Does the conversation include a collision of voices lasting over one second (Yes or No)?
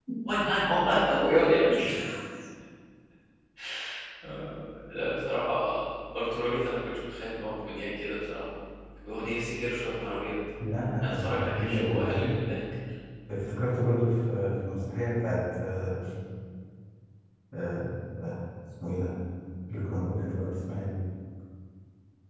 Yes